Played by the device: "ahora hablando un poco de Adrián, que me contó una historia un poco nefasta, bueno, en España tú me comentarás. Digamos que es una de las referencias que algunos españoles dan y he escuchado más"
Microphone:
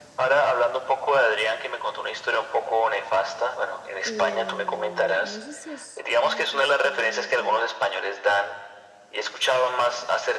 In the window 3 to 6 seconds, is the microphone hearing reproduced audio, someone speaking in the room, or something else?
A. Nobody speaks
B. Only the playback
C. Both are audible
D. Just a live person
C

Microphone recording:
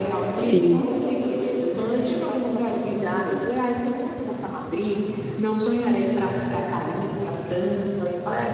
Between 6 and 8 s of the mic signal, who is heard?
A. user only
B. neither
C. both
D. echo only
D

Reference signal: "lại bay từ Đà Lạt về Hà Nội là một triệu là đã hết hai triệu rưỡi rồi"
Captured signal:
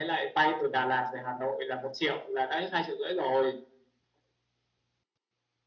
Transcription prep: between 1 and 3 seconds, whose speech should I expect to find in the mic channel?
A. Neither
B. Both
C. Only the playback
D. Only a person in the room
C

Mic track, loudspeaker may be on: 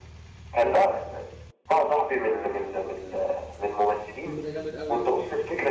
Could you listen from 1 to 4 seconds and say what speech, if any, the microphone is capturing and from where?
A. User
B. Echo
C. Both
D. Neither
B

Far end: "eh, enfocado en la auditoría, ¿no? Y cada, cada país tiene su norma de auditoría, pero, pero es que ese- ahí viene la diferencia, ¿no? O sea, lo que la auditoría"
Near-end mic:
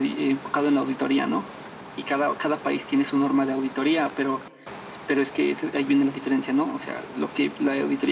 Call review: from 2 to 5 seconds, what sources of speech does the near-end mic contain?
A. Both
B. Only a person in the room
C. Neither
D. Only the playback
D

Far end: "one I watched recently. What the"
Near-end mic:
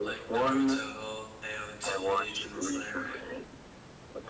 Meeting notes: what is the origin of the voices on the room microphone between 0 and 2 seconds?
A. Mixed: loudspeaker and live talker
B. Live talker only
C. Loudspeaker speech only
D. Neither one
A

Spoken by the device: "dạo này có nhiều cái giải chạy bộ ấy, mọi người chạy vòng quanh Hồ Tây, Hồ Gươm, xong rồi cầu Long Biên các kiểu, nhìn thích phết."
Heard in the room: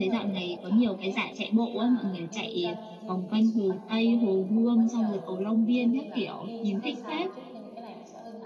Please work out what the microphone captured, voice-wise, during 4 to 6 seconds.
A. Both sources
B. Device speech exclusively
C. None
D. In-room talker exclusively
A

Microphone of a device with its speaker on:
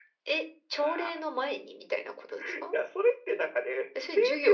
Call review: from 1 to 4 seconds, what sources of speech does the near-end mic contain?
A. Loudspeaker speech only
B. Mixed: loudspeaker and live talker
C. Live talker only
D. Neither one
A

